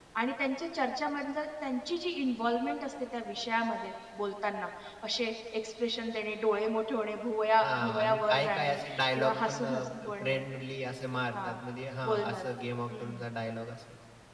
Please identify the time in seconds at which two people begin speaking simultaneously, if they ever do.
7.6 s

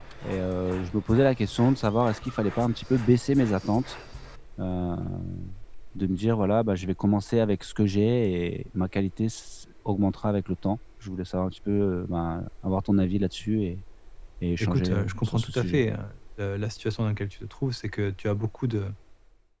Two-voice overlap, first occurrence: 14.6 s

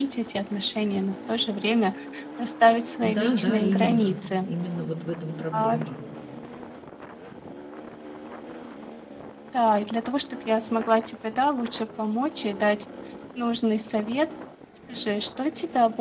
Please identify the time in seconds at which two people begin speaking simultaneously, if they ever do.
3.0 s

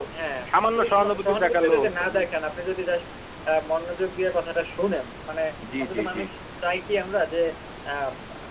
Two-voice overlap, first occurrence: 0.5 s

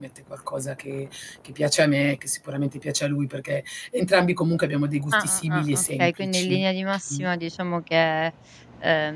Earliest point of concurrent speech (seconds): 5.1 s

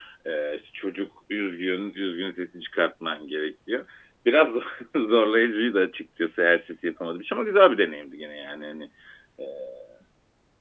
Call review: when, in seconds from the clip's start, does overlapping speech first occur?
none

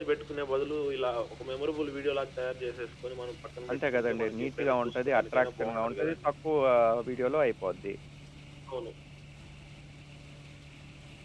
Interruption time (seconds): 3.7 s

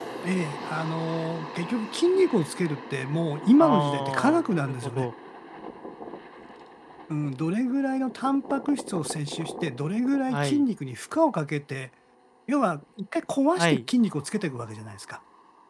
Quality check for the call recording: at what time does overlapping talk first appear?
3.6 s

